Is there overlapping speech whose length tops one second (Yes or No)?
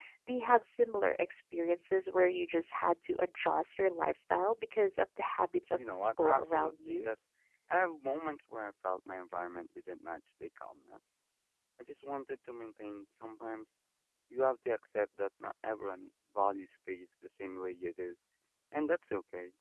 Yes